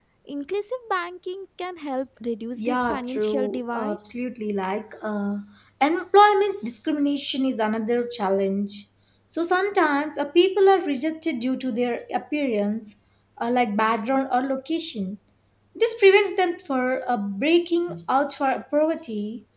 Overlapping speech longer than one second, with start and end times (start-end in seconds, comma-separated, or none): 2.6-4.0